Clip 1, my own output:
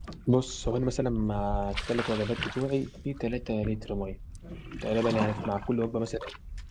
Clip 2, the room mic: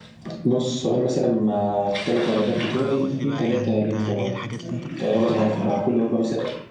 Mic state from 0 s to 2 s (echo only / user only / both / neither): echo only